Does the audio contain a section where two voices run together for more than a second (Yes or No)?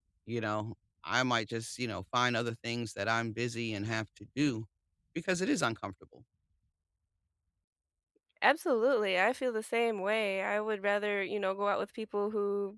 No